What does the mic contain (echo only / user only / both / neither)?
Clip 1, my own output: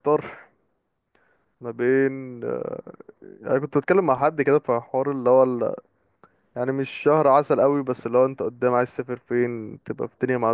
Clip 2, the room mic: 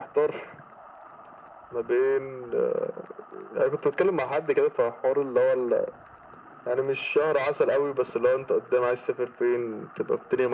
echo only